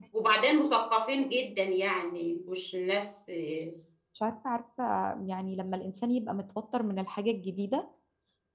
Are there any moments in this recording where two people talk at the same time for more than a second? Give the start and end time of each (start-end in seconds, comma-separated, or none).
none